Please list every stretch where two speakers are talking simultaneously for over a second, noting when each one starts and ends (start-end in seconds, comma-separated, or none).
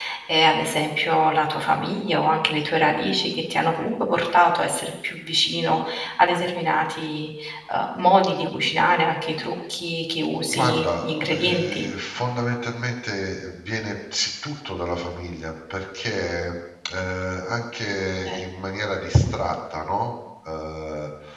10.4-11.8